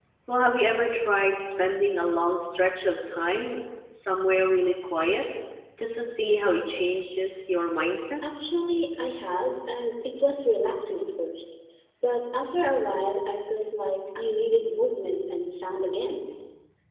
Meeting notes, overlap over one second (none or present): none